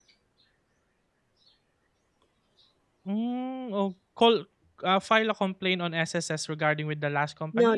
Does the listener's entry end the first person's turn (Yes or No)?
Yes